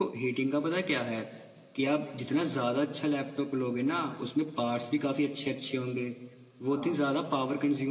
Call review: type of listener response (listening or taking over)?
listening